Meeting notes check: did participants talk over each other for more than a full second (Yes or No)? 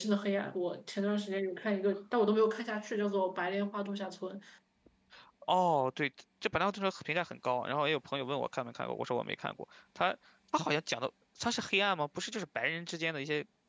No